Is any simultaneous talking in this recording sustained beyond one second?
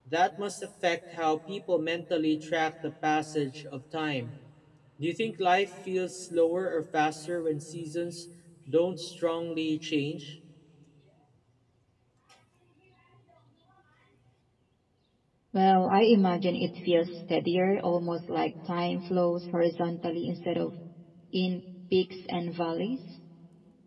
No

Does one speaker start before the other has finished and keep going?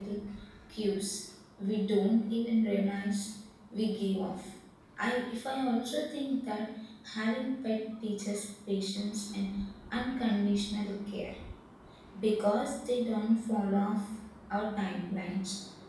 No

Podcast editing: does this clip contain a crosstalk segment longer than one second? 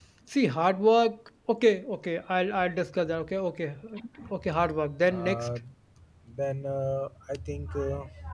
No

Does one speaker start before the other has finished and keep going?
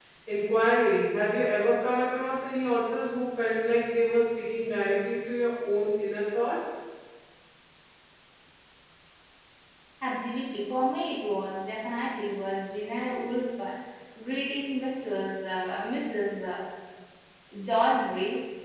No

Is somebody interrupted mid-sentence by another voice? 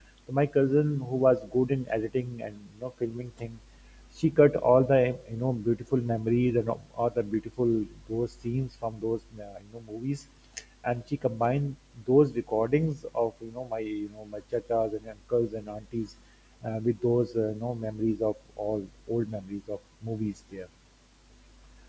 No

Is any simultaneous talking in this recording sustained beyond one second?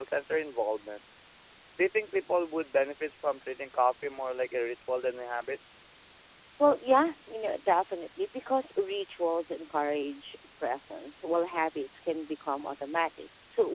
No

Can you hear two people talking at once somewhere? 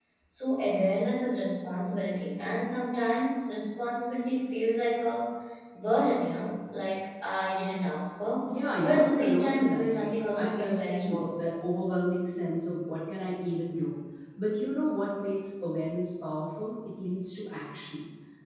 Yes, from 8.8 s

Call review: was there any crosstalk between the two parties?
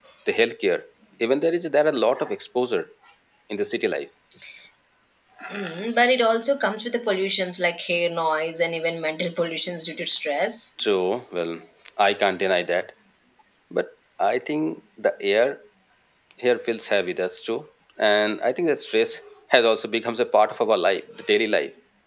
No

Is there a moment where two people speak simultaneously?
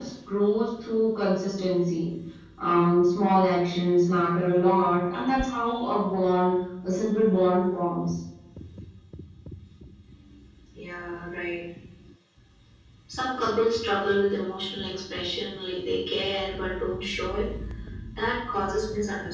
No

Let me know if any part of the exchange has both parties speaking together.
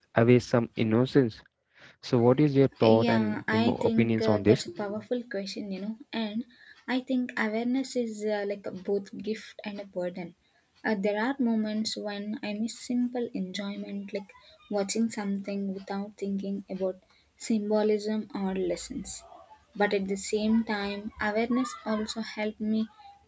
Yes, from 2.8 s

